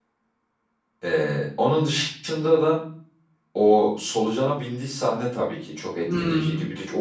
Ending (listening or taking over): listening